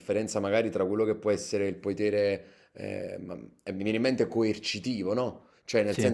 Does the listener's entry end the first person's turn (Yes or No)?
No